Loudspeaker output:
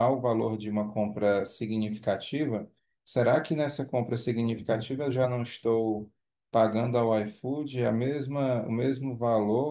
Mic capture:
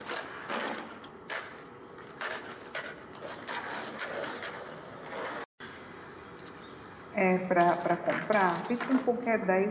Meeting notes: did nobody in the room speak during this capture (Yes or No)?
No